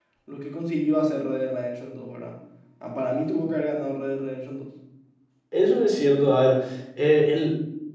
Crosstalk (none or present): none